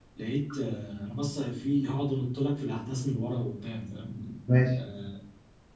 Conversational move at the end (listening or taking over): listening